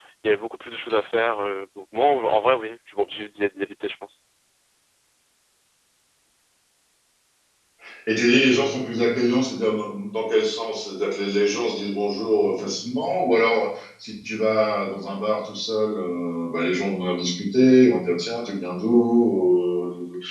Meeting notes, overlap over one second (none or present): none